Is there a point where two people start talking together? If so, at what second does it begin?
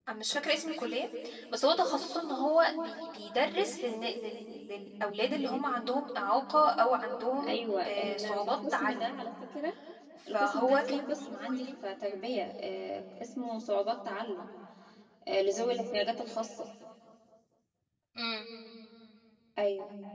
7.5 s

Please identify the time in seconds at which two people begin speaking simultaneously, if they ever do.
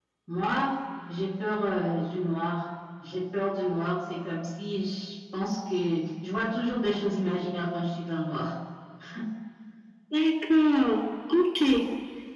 none

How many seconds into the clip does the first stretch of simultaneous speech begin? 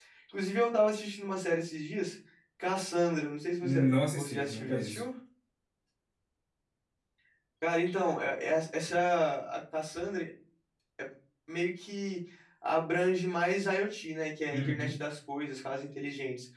3.6 s

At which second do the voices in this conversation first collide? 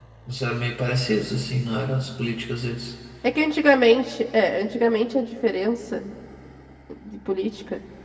none

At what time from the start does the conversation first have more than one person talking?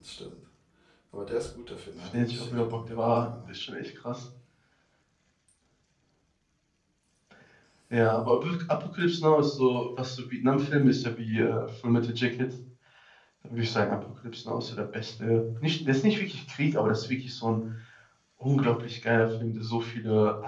2.1 s

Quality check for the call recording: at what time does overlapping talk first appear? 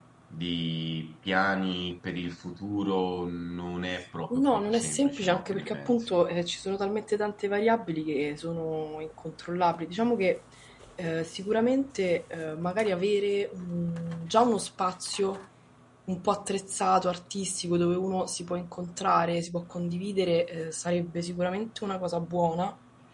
4.3 s

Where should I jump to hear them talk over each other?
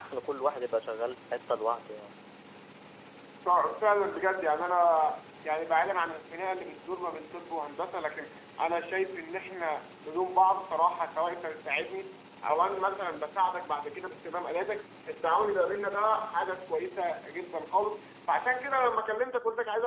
none

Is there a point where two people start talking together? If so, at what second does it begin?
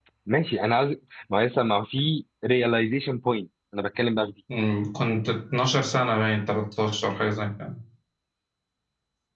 none

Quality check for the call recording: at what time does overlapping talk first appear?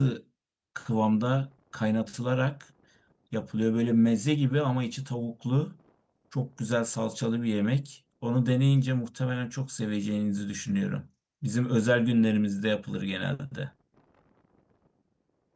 none

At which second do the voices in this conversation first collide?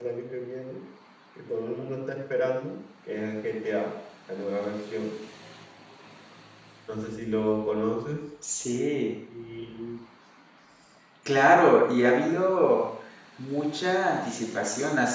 none

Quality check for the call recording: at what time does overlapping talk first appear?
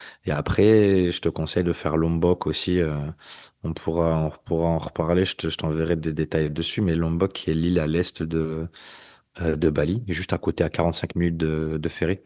none

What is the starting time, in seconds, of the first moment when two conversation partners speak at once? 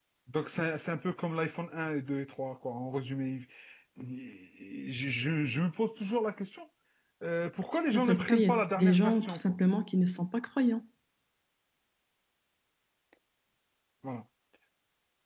7.9 s

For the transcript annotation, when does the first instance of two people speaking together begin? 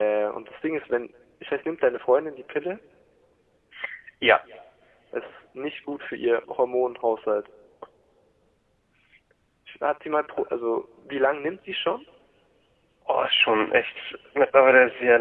none

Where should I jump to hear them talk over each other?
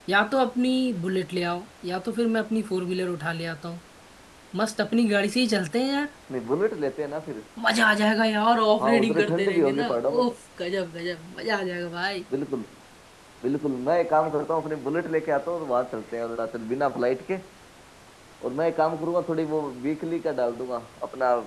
8.8 s

